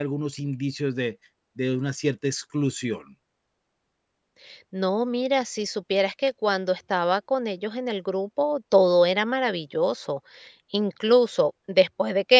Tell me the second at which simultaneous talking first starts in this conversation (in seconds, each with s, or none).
none